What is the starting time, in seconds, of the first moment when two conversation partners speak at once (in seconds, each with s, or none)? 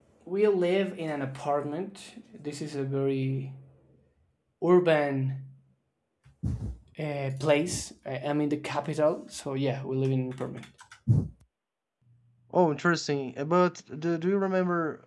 none